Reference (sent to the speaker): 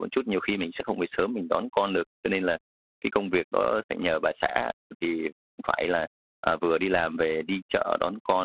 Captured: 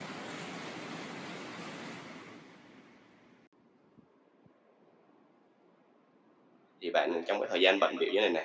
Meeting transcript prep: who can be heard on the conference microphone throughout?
user only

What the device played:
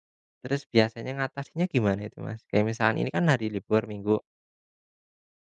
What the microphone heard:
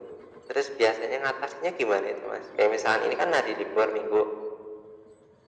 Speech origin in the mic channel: echo only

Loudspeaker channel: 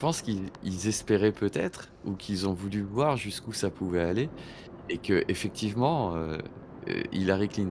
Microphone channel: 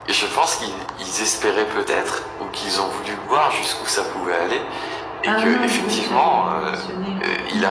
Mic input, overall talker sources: both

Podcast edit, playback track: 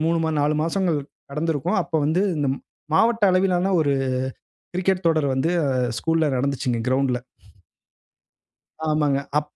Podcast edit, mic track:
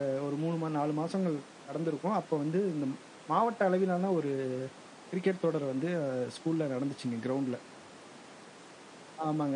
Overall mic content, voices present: echo only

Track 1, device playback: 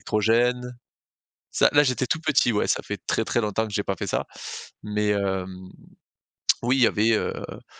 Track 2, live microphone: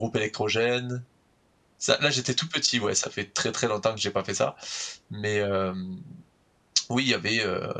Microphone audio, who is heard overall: echo only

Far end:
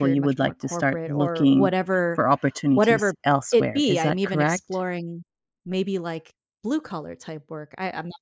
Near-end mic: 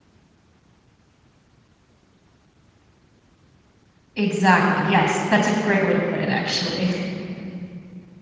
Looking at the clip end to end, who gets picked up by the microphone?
user only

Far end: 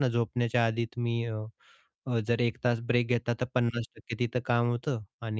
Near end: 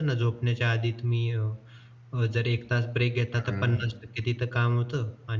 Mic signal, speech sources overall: both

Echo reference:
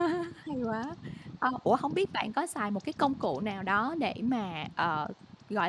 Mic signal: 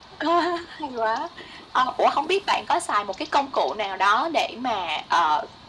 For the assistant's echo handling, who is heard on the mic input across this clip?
echo only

